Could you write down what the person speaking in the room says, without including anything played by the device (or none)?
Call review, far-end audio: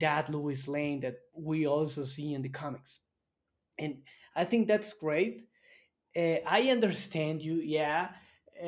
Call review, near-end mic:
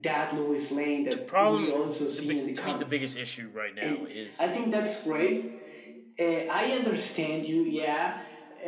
the problem the big to me the biggest issue right now is